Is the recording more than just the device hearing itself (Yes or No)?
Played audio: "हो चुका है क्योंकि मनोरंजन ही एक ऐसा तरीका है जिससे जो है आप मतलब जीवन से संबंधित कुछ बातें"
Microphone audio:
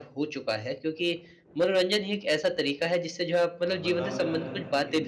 Yes